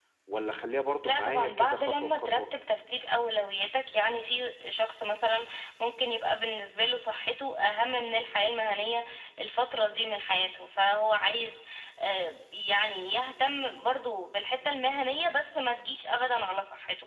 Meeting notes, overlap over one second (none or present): present